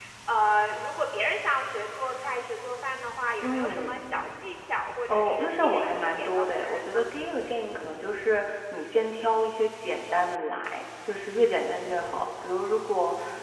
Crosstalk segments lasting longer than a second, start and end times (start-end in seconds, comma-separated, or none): 5.1-7.0